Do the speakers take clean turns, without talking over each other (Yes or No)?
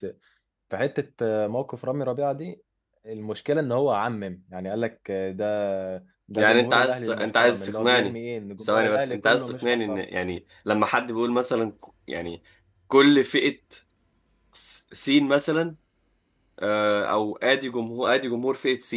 No